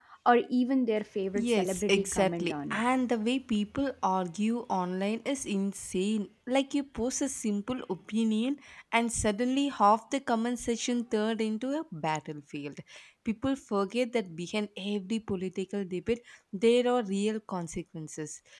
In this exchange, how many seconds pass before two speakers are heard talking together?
1.4 s

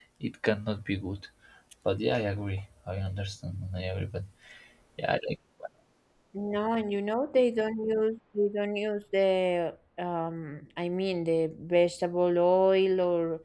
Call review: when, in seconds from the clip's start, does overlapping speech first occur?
none

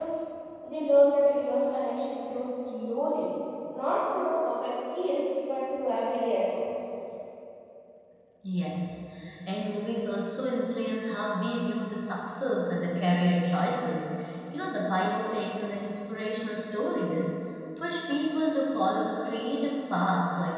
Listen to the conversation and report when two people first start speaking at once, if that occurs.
none

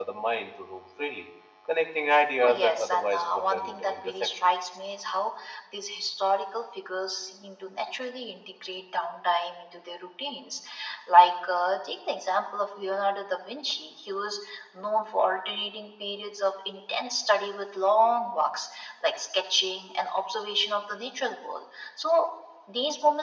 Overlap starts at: 2.4 s

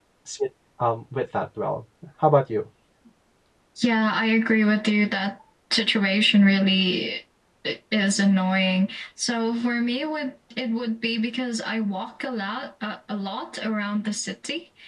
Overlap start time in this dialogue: none

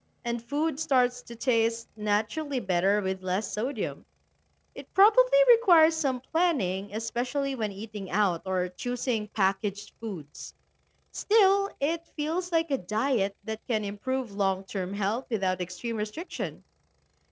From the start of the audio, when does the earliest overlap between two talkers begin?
none

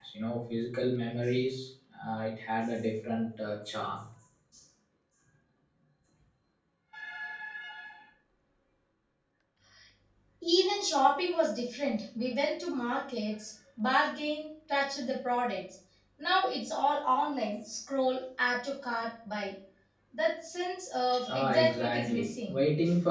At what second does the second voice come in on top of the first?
21.4 s

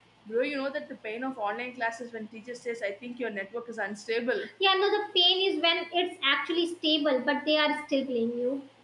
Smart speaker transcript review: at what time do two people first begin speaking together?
none

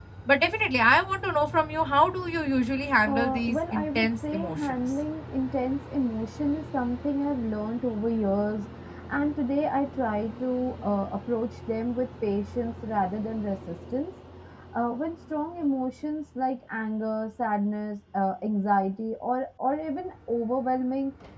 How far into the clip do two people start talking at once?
3.0 s

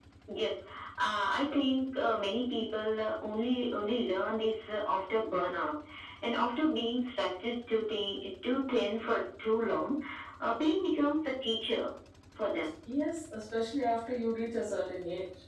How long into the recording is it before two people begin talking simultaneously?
none

